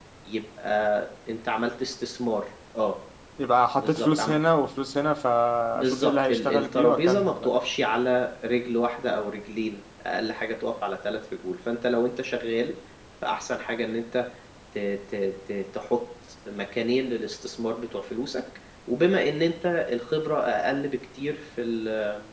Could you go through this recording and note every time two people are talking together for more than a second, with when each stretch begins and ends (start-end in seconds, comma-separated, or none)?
5.8-7.5